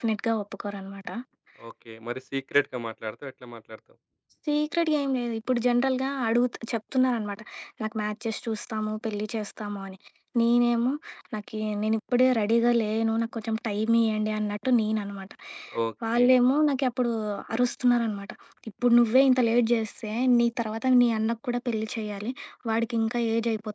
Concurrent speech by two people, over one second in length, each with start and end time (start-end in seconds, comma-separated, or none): none